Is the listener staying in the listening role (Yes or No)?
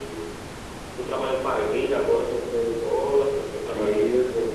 Yes